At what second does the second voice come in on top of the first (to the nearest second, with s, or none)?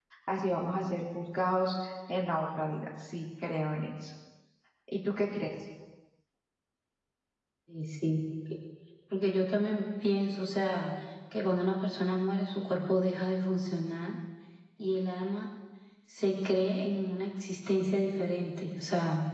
none